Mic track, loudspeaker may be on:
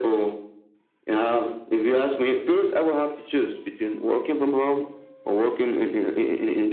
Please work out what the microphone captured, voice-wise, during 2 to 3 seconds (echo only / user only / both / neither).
echo only